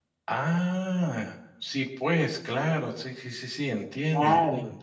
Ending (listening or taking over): taking over